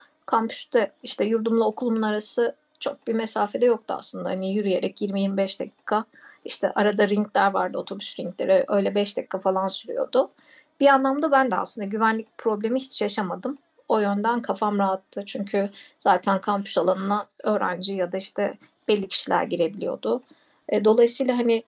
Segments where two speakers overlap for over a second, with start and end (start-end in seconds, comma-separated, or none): none